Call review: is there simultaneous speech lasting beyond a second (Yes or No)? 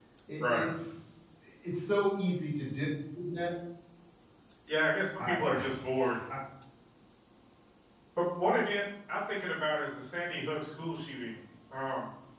No